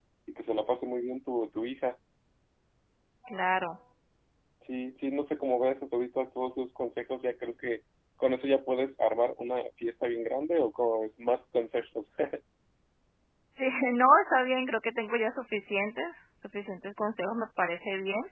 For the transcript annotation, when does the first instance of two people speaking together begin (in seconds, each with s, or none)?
none